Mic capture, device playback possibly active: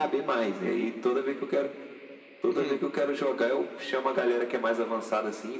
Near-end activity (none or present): present